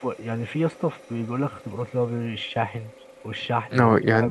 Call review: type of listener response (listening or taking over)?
taking over